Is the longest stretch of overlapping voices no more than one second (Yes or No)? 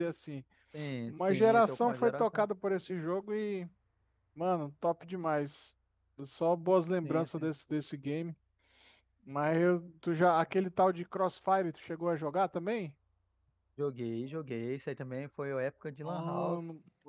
No